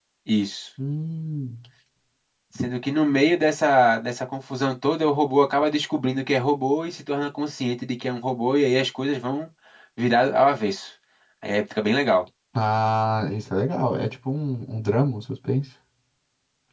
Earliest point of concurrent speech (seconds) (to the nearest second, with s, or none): none